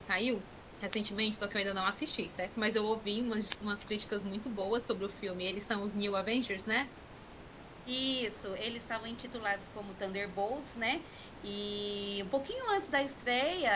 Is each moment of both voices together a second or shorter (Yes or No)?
Yes